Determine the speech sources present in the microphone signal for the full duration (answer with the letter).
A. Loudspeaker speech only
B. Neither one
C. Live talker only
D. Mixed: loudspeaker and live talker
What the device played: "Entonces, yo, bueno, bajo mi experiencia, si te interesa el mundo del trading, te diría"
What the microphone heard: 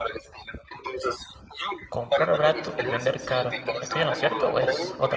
D